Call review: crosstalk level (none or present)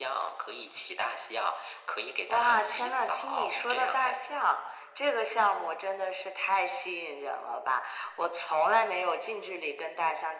present